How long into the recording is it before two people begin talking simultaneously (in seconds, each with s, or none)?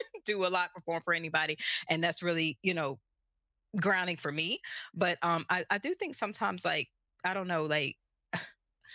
none